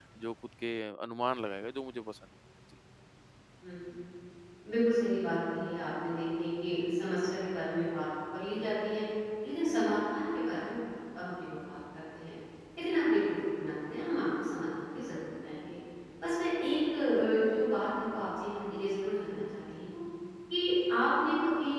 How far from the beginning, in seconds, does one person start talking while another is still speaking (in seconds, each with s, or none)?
none